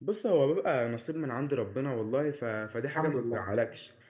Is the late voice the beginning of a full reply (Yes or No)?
No